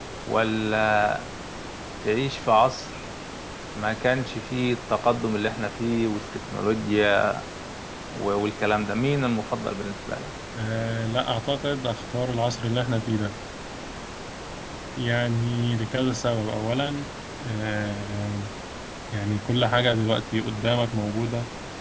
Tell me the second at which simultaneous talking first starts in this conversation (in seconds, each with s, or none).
none